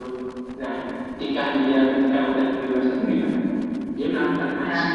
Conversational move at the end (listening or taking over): listening